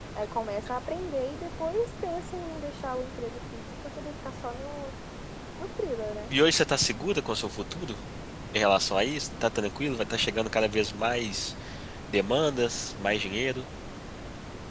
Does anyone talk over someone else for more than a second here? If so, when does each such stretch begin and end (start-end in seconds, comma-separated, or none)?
none